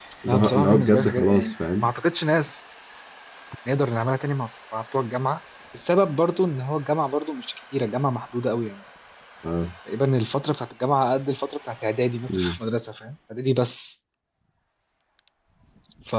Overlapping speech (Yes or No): Yes